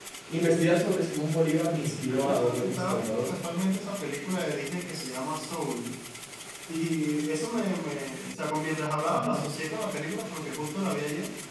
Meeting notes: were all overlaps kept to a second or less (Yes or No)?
No